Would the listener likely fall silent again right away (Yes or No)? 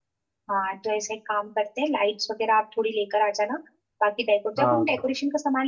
Yes